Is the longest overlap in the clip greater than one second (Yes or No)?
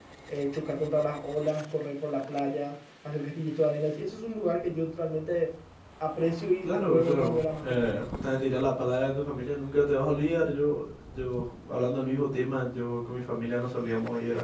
Yes